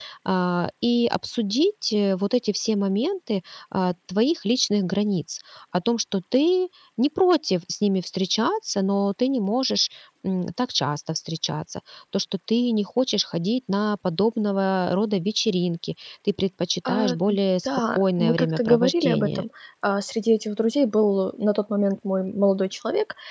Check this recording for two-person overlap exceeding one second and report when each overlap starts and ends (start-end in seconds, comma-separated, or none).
17.6-19.4